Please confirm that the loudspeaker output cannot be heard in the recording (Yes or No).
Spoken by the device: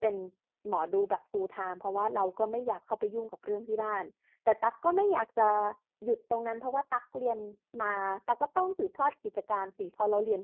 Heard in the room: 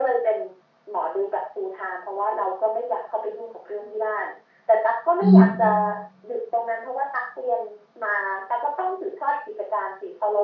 No